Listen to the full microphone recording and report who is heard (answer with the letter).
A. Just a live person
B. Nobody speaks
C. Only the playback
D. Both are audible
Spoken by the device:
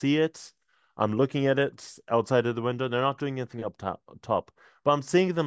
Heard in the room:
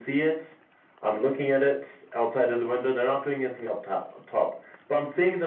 C